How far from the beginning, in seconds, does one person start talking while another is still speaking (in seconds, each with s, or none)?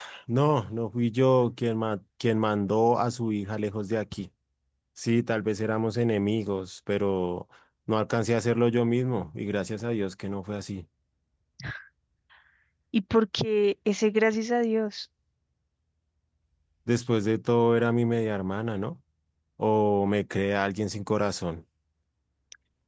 none